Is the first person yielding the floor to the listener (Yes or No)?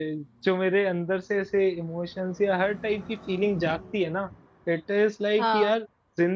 No